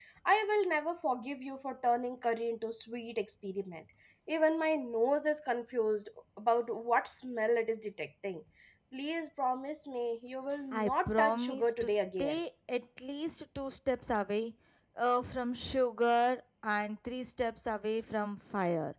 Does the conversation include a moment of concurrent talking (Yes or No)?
Yes